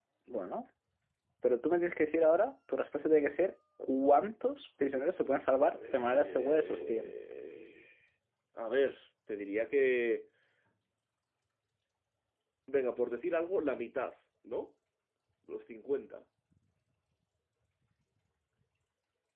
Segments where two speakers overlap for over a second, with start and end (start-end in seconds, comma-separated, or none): 5.8-7.1